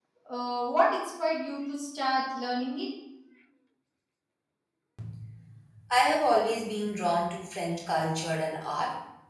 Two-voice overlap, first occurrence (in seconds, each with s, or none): none